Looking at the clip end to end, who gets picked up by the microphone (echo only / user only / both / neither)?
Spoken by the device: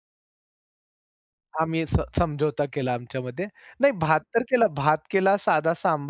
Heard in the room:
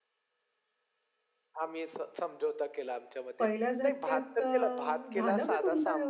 both